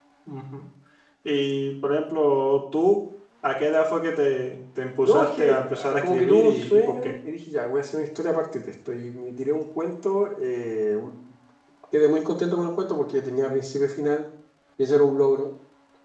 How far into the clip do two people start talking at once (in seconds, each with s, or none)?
5.0 s